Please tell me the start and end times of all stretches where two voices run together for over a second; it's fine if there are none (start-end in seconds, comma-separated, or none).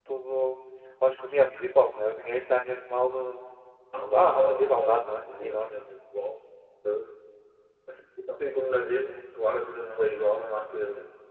4.1-5.7